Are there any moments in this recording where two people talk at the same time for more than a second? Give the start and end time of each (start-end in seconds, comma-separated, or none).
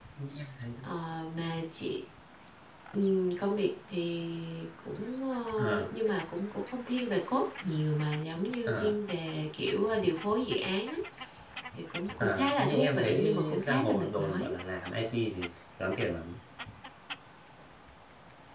12.2-14.5